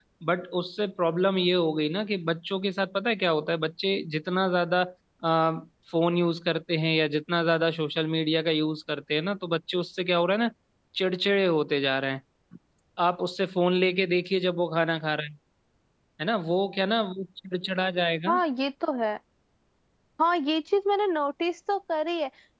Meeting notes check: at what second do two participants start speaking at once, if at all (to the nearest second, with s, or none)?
none